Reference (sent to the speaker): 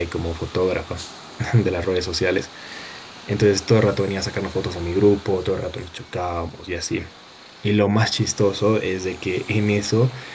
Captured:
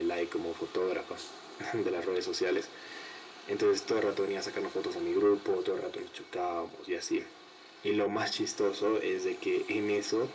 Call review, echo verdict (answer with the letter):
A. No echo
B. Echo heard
B